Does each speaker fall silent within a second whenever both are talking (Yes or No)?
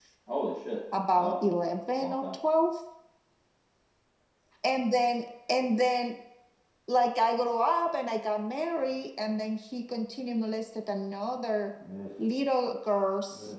Yes